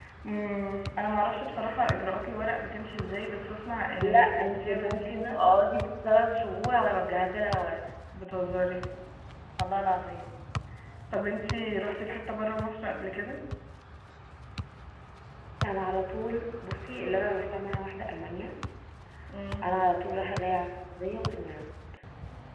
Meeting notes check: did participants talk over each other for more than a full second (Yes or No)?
Yes